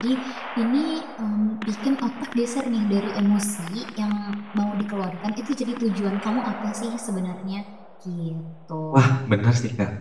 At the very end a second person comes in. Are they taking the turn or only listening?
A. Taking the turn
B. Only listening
A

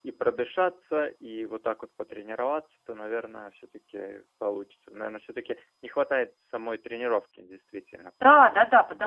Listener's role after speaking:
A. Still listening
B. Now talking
B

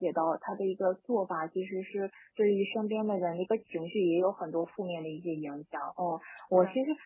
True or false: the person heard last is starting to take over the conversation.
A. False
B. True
A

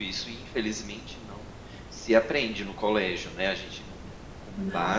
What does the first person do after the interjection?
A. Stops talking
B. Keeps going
B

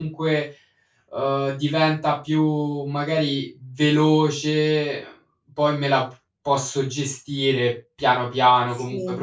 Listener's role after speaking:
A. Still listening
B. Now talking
A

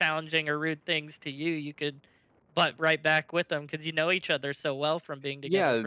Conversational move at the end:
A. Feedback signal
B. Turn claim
B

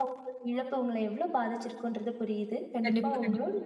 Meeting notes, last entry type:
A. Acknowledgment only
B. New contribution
A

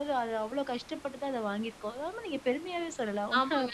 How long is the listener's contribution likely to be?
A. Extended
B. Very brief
A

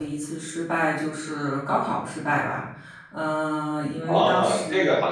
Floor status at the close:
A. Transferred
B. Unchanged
A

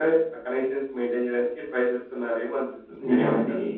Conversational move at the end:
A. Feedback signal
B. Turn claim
B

